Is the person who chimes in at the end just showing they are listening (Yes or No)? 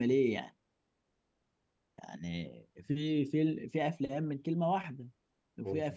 Yes